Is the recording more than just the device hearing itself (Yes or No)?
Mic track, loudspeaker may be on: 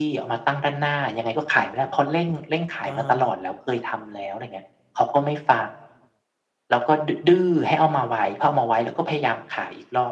Yes